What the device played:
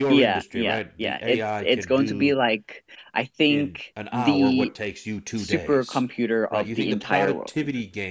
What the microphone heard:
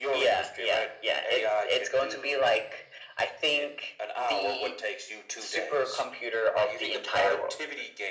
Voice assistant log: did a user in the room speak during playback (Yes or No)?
No